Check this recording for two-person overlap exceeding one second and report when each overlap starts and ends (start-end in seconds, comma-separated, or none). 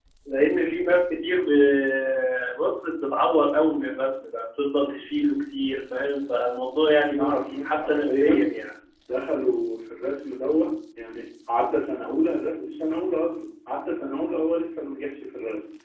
7.1-8.5